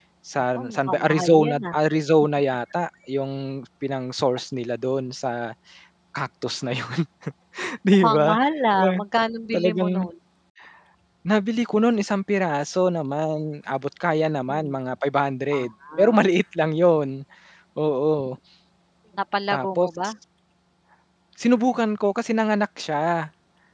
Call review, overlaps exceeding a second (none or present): present